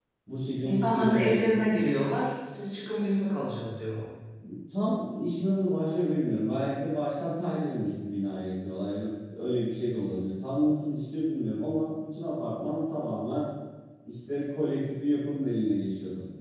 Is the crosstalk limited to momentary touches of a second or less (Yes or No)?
No